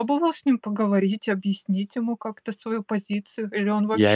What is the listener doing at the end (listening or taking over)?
taking over